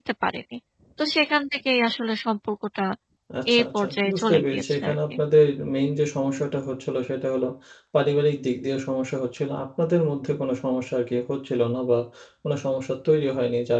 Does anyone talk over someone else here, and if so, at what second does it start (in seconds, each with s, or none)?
3.5 s